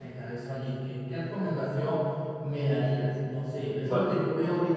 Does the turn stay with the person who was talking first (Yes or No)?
Yes